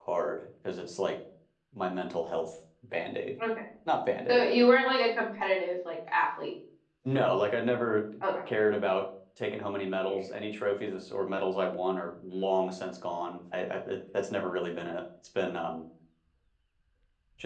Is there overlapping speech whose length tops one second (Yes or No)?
No